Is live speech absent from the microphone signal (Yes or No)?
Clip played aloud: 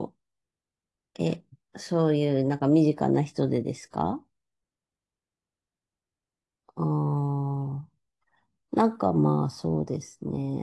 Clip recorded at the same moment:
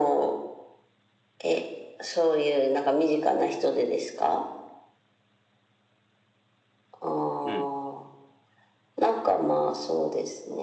No